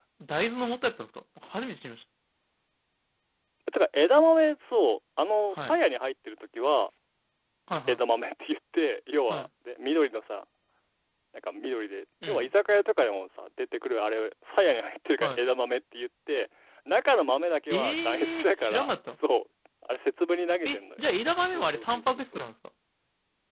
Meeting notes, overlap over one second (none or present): present